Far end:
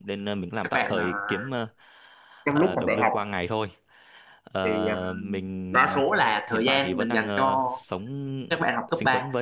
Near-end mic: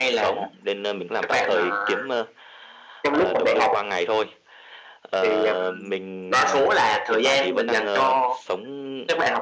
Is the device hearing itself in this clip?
Yes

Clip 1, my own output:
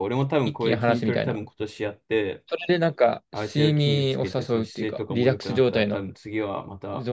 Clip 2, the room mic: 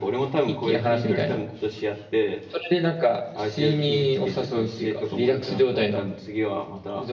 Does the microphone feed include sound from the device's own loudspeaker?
Yes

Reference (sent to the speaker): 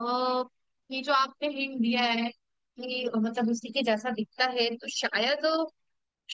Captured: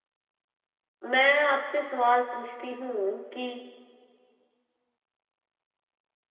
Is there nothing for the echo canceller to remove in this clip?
Yes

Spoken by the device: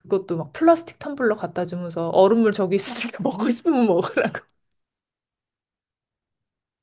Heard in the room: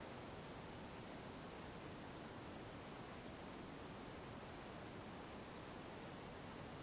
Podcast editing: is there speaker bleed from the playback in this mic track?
No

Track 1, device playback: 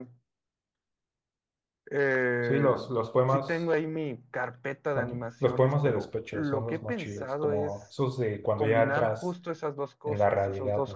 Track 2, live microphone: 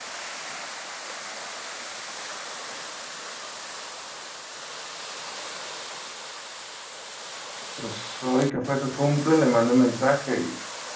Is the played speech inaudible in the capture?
Yes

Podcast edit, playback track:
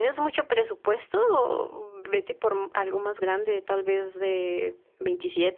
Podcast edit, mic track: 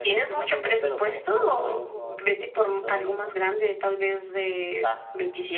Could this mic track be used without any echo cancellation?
No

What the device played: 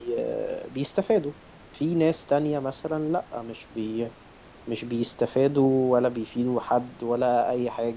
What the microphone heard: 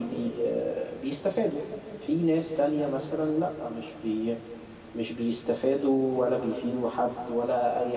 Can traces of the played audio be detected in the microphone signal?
Yes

